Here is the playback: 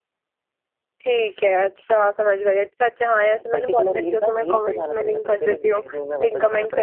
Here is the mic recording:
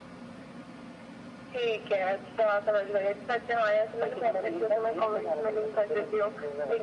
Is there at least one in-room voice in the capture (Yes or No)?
No